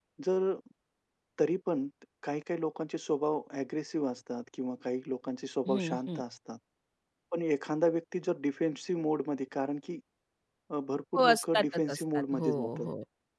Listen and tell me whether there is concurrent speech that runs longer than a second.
Yes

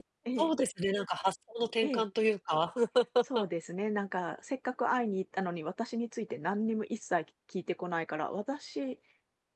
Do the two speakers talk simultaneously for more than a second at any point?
No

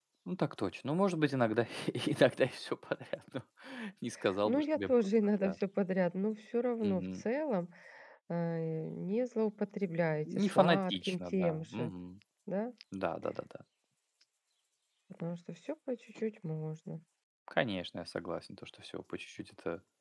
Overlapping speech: Yes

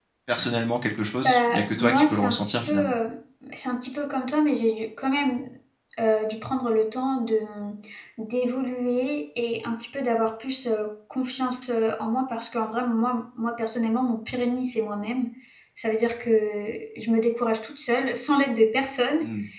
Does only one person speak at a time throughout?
No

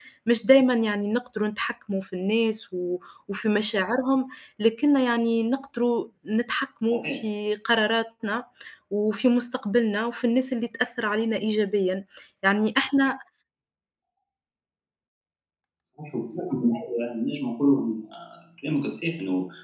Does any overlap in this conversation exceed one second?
No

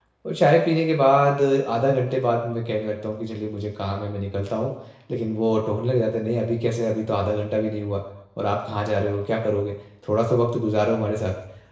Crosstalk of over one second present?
No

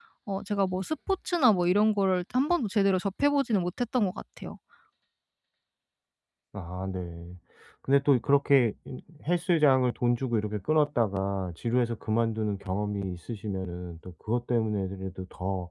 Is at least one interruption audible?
No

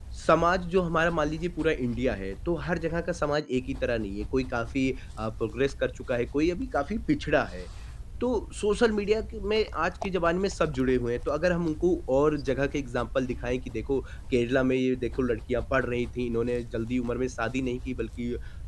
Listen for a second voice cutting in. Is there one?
No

